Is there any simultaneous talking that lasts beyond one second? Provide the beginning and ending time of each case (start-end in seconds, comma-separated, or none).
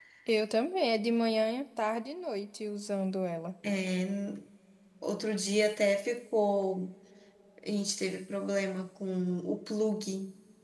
none